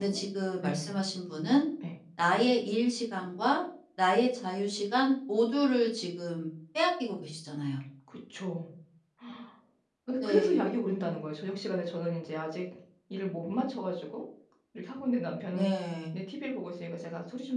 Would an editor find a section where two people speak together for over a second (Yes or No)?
No